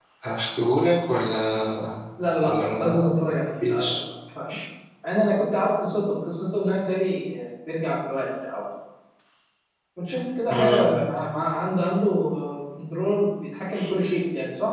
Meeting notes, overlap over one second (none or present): none